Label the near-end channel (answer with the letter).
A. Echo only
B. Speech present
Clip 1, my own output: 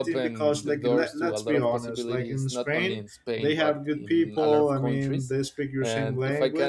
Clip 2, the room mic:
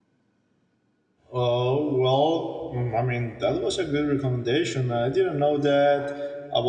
B